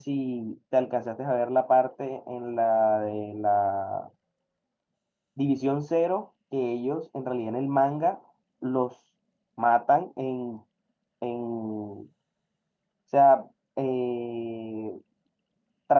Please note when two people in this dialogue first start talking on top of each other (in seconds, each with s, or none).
none